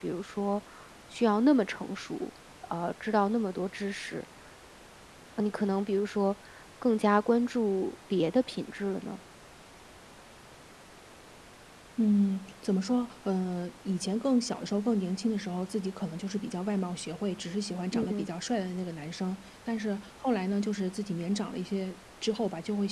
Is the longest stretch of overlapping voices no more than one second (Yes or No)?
Yes